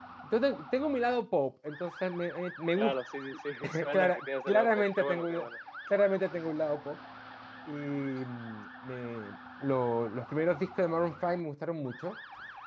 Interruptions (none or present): present